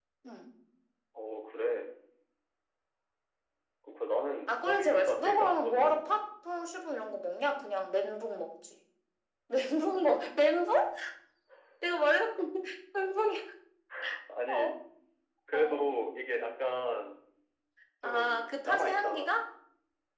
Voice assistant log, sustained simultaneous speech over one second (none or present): present